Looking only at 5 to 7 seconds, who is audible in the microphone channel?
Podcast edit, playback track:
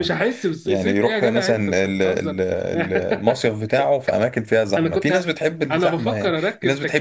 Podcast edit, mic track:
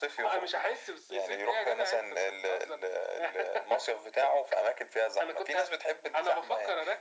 echo only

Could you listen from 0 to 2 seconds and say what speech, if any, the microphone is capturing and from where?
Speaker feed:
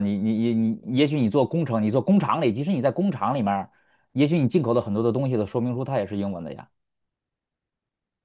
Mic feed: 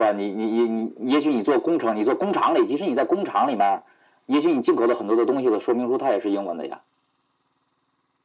echo only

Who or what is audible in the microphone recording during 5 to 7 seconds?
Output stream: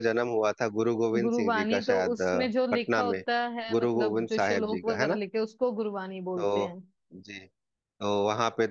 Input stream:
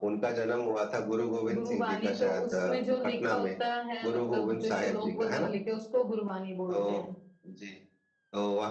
echo only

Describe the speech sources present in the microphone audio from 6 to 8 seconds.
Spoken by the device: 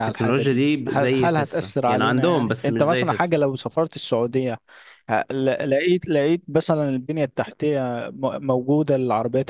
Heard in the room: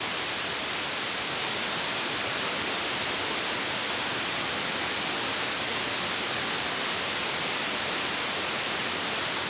neither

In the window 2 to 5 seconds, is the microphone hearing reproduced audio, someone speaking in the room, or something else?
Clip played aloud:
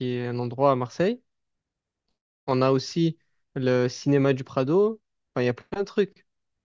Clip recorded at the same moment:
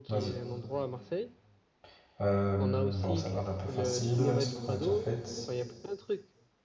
both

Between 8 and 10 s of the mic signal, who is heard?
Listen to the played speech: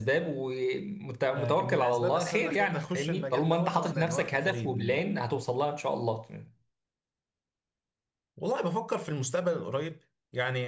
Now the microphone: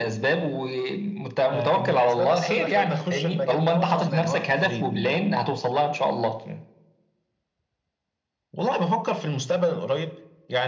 echo only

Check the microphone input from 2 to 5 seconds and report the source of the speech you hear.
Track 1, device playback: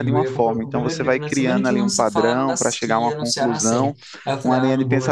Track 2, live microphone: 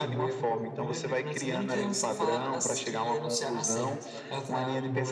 both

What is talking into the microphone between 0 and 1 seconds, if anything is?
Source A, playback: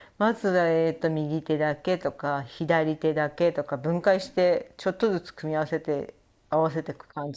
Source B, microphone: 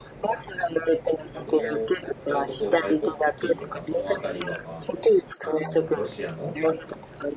echo only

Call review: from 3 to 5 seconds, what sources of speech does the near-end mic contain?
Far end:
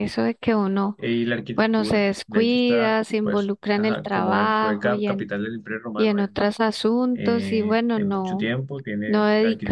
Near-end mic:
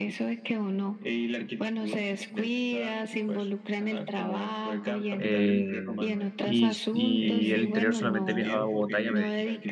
echo only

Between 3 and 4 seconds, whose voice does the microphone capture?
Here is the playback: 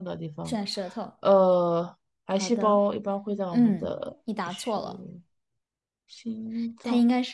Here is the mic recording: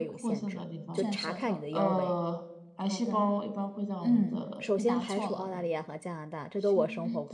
echo only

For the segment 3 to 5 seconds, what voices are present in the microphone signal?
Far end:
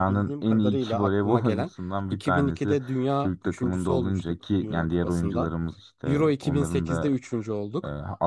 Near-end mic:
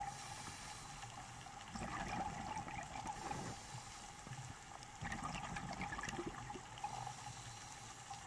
neither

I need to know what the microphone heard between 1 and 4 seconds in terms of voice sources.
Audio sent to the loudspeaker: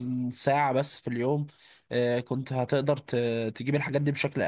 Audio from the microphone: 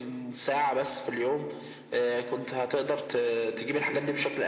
echo only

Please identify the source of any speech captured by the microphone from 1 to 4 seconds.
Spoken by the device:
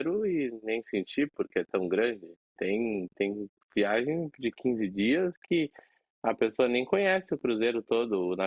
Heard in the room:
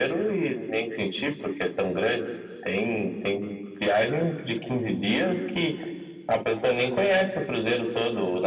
echo only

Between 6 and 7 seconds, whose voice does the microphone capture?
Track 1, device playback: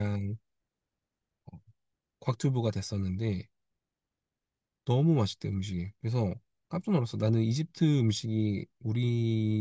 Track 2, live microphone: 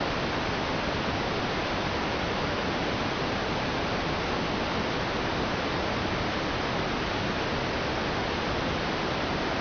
neither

